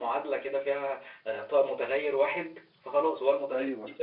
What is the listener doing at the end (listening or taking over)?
listening